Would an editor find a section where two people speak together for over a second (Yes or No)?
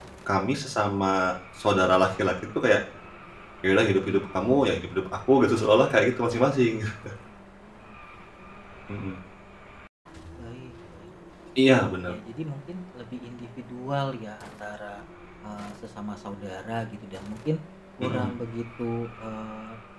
No